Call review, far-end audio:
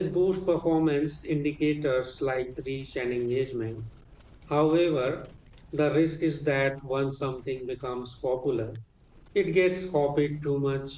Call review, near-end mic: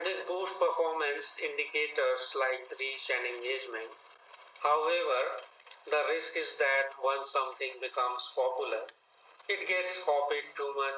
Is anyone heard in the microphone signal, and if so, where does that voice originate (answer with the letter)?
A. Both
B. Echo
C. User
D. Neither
B